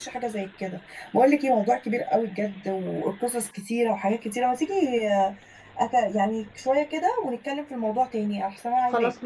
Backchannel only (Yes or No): No